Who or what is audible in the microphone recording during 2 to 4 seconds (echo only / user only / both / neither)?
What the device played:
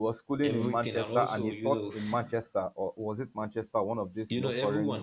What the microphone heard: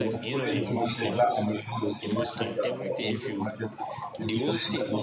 both